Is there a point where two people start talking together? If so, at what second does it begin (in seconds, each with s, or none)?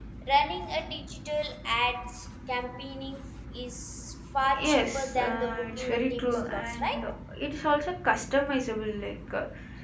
4.4 s